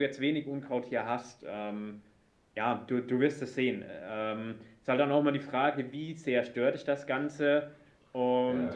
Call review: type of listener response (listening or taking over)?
listening